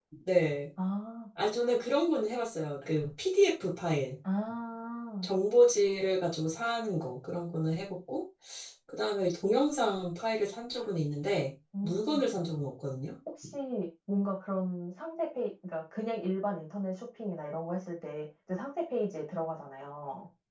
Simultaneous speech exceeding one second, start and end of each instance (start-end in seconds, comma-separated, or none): none